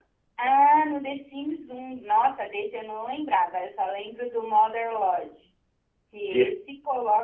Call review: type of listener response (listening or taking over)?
listening